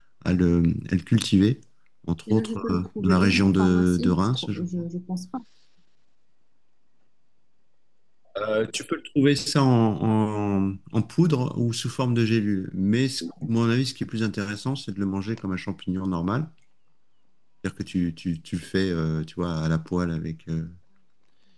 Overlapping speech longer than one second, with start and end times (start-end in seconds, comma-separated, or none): 2.3-4.7